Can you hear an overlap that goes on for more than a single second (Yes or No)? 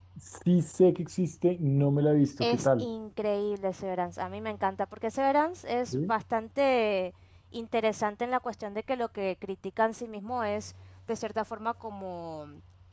No